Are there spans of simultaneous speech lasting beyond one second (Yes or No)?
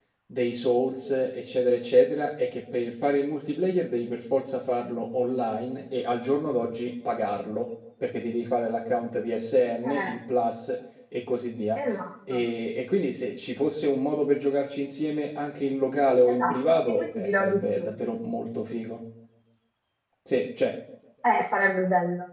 Yes